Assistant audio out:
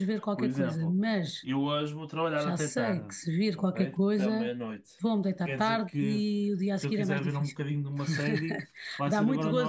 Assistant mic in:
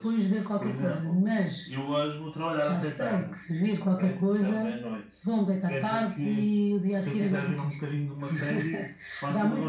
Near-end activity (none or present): none